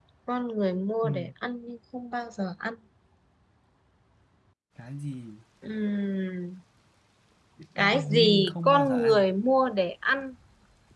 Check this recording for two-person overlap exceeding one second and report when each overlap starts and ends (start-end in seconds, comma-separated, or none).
7.8-9.2